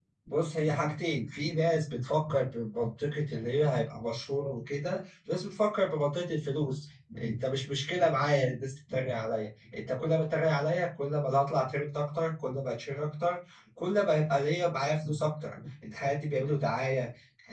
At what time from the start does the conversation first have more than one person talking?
none

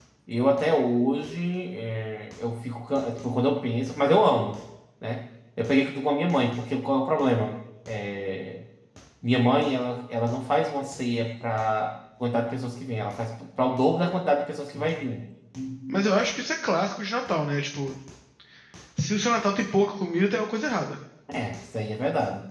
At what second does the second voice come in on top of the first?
none

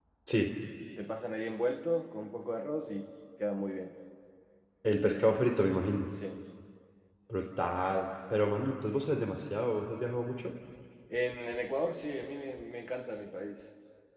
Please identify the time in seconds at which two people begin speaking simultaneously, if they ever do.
none

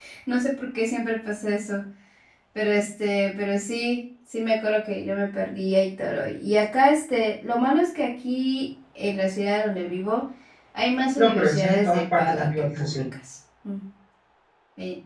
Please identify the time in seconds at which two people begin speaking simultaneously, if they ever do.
11.2 s

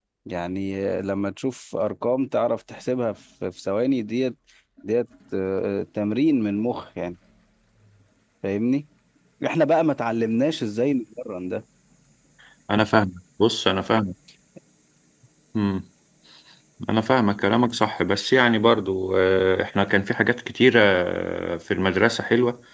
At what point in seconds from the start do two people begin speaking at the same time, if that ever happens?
none

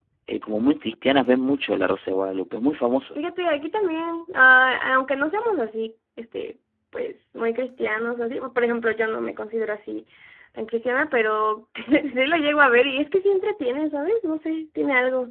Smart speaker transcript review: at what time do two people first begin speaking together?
none

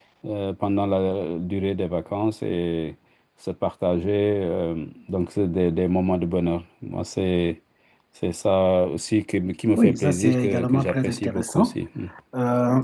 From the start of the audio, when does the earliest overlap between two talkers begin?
9.7 s

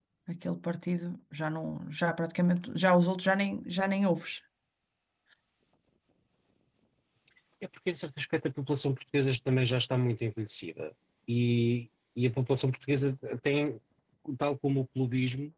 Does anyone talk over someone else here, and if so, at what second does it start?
none

